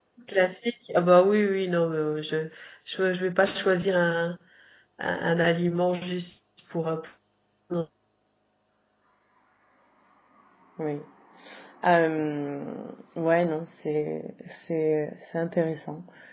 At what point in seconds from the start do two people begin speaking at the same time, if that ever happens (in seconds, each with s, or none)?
none